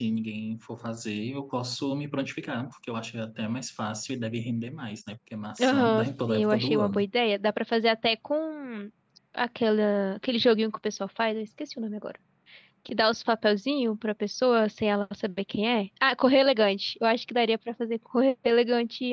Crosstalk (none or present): present